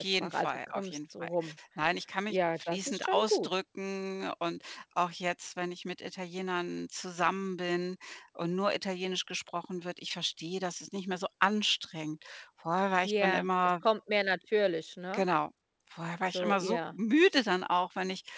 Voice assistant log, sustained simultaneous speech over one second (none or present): present